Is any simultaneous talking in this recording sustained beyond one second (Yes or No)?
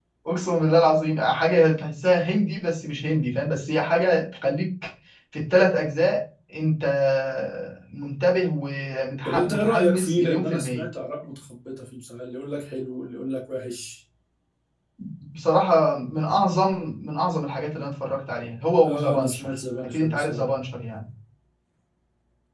Yes